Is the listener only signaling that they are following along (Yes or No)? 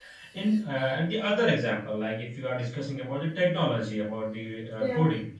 Yes